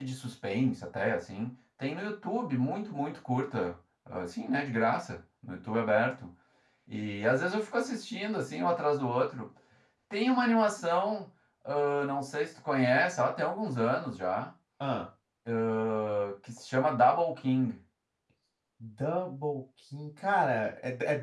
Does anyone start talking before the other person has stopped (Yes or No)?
No